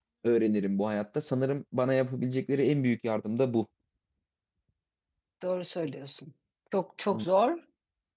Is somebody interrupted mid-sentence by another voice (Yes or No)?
No